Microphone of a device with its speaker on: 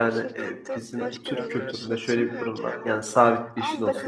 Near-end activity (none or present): present